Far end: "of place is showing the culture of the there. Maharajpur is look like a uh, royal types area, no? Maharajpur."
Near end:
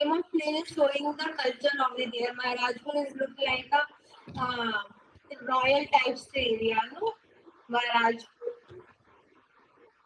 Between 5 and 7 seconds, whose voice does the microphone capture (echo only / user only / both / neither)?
echo only